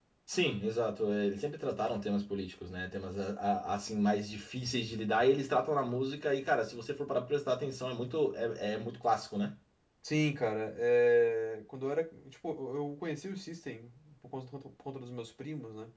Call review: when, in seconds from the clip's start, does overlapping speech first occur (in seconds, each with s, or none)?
none